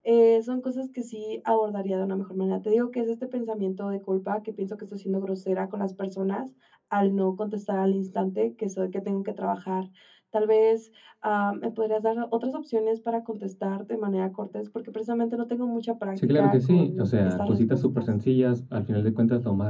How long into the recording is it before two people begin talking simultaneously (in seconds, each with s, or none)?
16.1 s